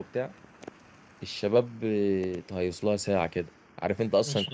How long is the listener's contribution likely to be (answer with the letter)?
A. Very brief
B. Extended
A